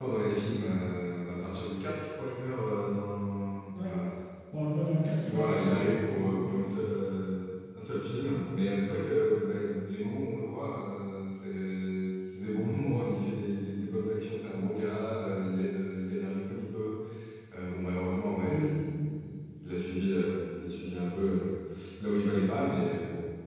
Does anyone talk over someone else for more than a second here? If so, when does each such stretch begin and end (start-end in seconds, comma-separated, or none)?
5.3-6.6